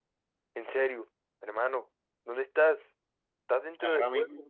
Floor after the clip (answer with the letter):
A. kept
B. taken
B